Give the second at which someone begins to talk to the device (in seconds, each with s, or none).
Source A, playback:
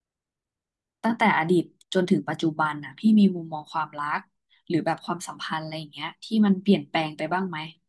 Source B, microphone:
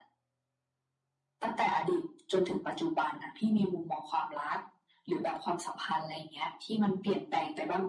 none